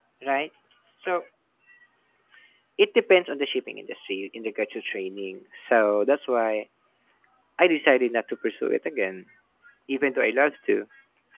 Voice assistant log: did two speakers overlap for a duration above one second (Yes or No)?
No